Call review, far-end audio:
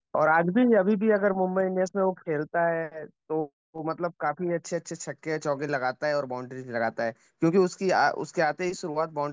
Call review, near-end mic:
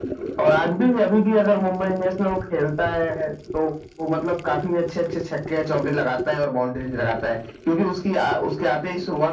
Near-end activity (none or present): none